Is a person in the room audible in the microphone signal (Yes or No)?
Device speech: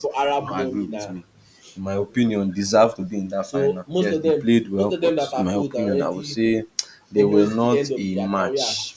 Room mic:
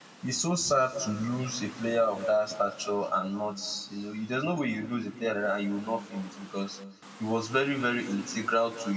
Yes